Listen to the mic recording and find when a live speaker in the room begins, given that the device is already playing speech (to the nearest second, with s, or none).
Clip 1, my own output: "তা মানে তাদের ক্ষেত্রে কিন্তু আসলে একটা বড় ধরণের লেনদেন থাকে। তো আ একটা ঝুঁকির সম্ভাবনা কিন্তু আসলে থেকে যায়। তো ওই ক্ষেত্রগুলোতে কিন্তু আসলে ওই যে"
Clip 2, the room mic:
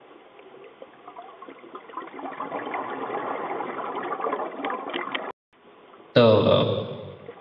6 s